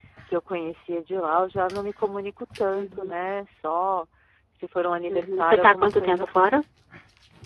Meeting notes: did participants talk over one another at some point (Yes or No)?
Yes